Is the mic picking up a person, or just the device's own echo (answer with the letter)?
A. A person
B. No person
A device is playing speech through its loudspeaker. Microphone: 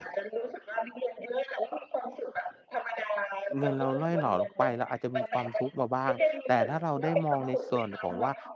A